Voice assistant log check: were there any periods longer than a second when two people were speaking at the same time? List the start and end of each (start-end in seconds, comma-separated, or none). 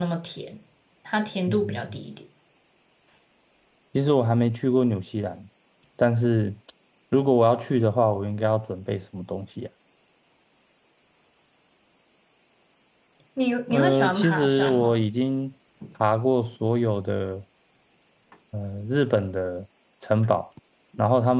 13.7-15.0